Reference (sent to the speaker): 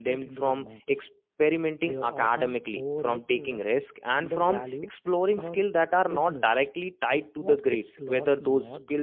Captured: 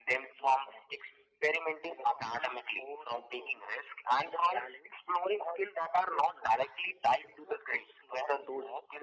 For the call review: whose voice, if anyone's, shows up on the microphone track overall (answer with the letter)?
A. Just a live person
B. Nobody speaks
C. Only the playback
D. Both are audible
C